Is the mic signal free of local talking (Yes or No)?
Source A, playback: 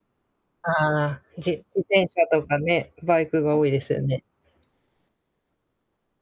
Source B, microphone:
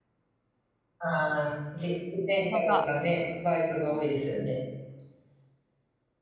No